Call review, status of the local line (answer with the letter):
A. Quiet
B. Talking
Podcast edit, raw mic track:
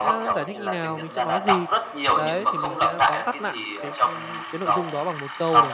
B